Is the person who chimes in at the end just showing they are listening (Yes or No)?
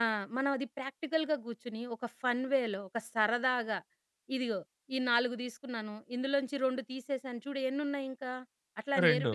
Yes